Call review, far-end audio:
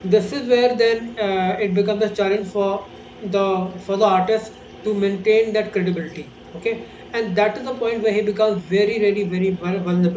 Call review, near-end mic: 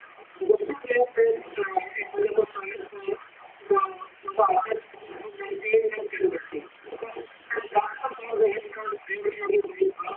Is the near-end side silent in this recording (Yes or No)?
Yes